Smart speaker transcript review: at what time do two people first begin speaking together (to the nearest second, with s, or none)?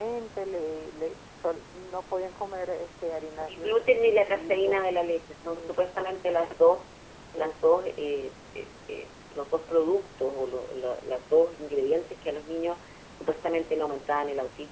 3 s